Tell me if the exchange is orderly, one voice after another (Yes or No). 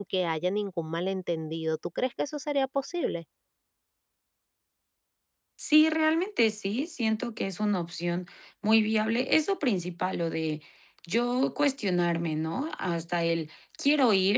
Yes